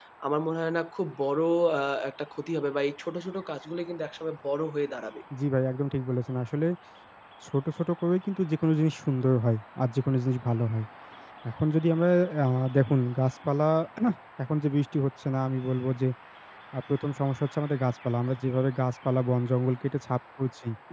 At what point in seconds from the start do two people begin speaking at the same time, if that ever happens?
none

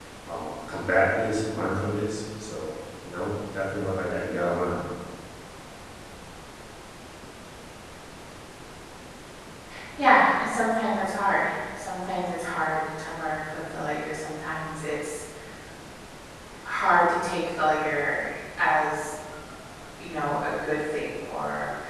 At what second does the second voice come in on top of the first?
none

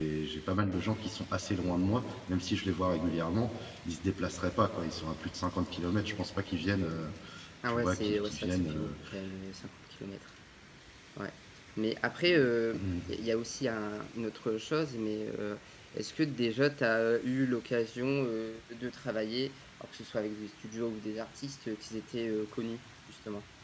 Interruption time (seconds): 7.7 s

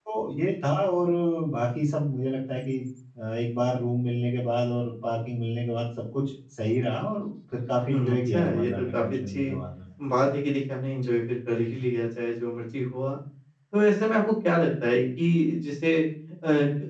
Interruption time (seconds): 7.9 s

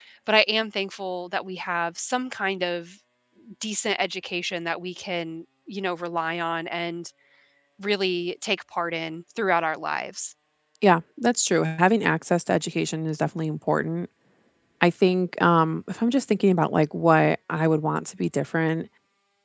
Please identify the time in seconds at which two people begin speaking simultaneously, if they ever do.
none

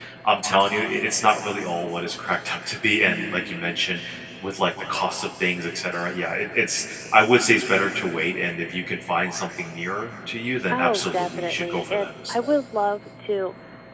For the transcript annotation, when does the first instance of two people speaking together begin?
10.7 s

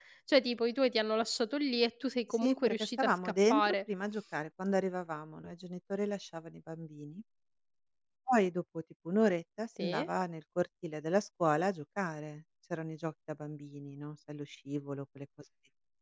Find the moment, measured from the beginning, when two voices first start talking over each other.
2.4 s

